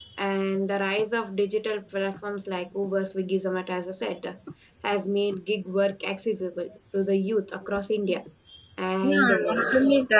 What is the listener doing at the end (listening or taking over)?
taking over